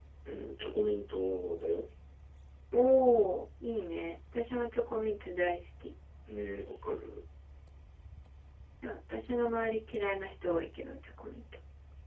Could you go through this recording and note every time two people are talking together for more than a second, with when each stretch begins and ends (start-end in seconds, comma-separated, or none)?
none